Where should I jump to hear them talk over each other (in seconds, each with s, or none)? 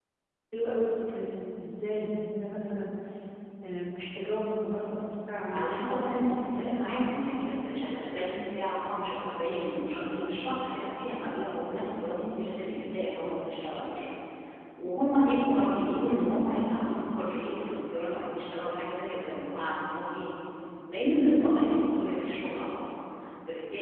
5.5 s